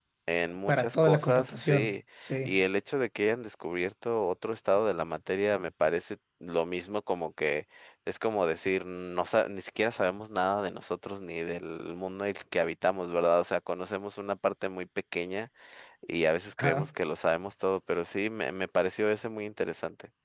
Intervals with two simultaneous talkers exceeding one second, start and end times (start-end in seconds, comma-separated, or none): 0.7-1.9